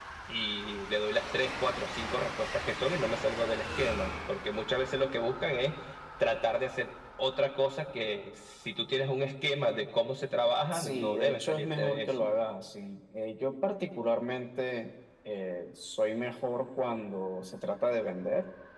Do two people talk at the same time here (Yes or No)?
Yes